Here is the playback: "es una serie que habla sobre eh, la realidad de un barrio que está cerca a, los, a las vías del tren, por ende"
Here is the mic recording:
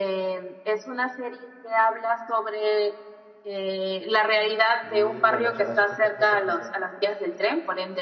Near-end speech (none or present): present